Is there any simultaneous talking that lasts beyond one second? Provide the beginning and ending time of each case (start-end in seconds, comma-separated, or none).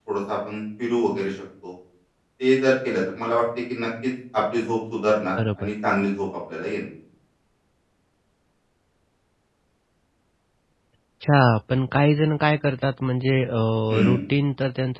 none